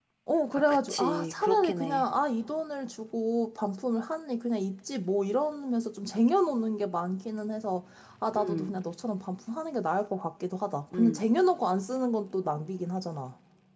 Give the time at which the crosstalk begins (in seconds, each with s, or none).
0.5 s